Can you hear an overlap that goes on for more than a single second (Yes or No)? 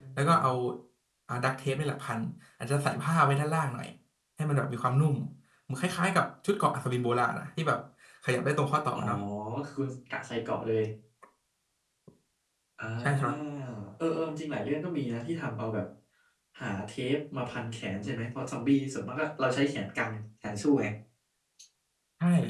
No